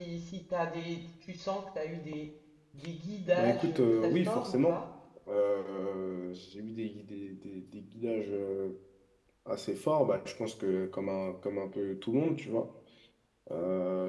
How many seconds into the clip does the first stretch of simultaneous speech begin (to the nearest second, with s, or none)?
3 s